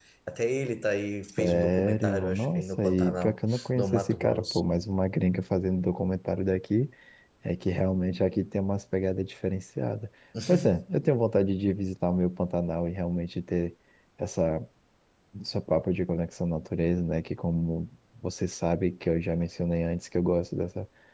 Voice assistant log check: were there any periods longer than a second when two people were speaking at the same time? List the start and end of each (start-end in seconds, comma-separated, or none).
1.4-4.6